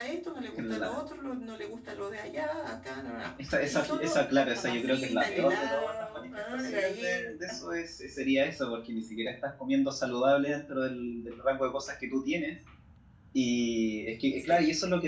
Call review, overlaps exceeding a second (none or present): present